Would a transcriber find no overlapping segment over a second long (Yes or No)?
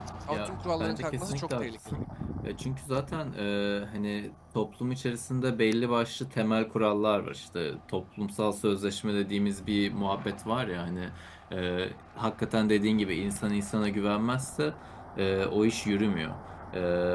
No